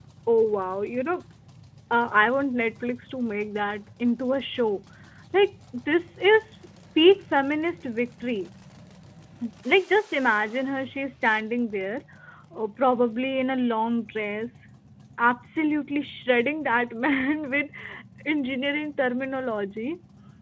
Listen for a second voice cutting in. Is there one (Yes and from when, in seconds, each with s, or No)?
No